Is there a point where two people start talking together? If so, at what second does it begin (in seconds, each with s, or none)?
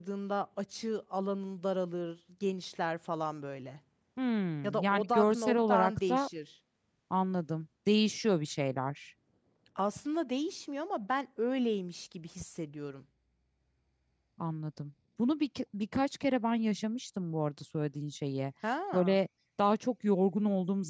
4.6 s